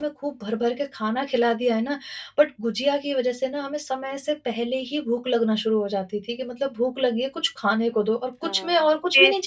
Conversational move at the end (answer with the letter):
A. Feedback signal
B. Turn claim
B